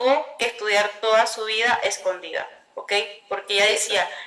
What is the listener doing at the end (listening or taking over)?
listening